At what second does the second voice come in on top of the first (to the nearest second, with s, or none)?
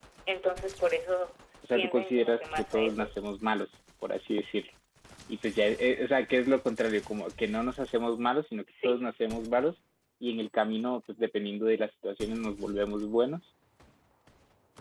2 s